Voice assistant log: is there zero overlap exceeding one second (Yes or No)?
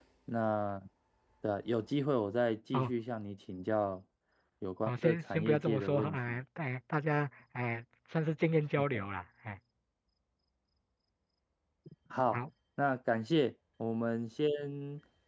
No